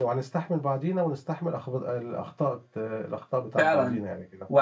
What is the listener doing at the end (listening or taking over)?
taking over